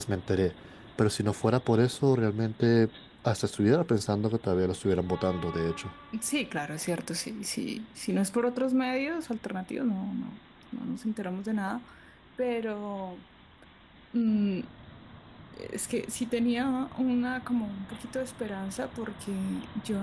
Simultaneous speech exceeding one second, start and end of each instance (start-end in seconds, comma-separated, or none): none